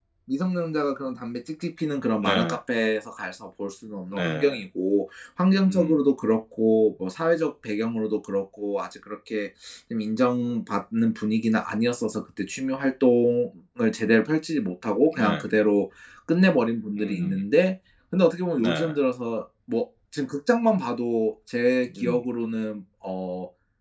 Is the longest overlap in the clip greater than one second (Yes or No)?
No